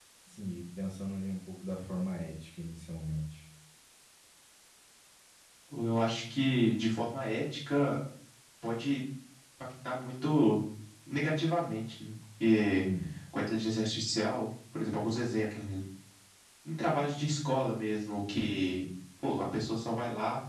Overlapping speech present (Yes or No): No